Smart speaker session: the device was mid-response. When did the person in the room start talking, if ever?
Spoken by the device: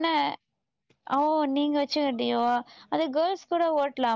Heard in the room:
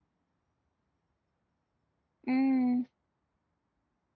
2.3 s

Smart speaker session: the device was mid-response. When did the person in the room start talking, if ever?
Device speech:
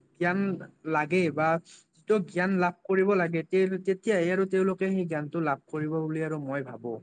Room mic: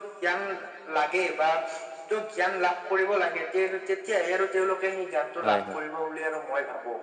5.4 s

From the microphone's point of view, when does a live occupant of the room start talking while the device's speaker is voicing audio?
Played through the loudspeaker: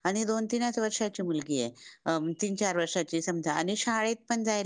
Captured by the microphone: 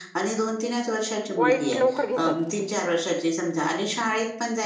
1.4 s

